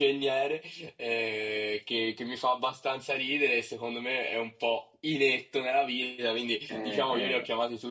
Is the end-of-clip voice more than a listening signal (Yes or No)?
No